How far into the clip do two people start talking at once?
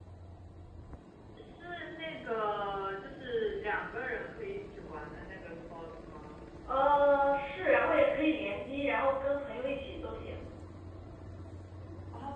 none

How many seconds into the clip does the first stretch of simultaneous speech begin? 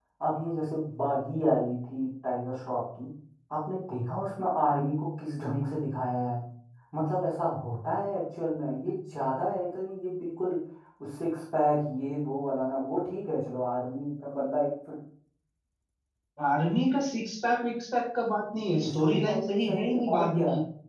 19 s

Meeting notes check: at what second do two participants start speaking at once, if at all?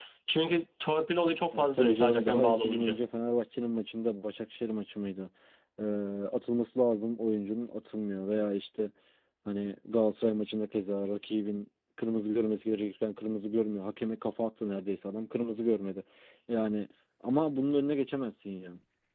2 s

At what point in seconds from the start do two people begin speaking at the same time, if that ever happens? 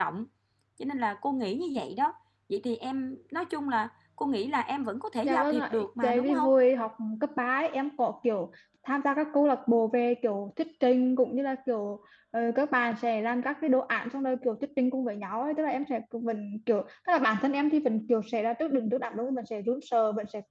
5 s

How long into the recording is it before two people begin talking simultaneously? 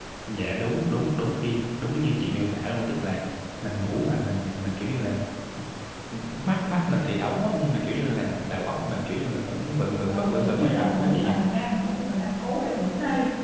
10 s

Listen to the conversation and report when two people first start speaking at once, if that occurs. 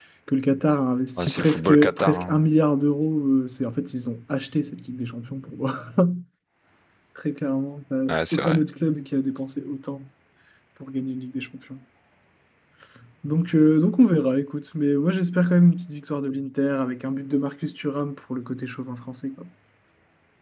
1 s

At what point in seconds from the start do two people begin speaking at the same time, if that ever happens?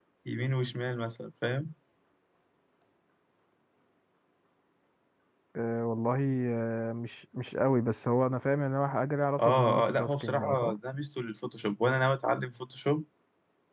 9 s

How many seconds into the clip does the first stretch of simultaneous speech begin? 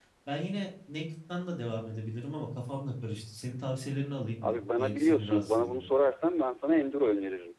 4 s

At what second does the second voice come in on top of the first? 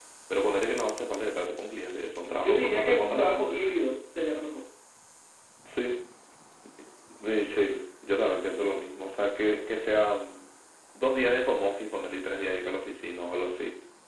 2 s

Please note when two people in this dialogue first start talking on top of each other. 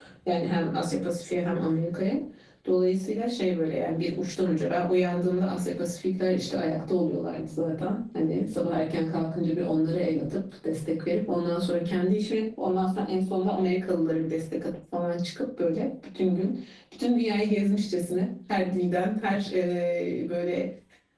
none

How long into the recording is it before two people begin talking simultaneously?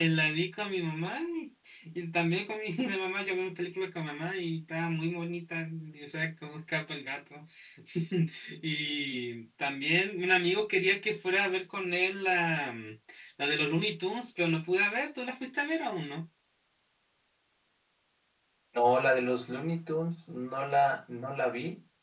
none

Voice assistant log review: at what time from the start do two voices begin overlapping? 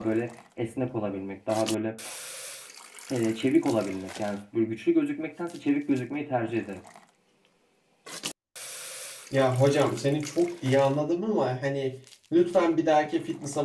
none

